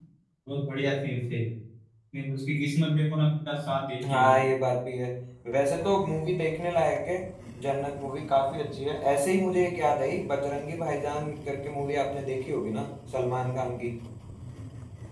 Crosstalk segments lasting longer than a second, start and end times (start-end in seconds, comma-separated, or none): none